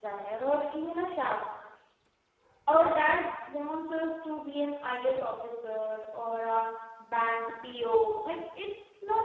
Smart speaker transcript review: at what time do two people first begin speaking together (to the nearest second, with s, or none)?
none